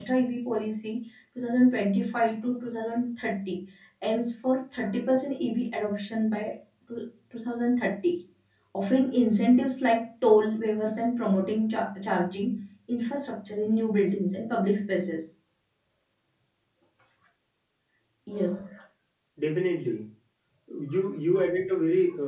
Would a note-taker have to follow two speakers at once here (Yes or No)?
No